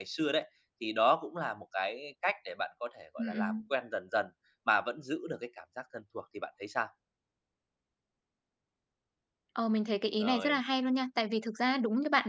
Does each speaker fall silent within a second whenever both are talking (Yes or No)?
Yes